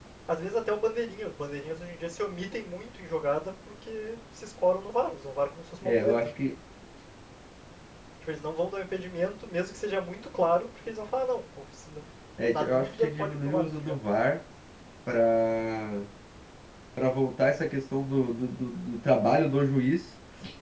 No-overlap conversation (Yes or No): No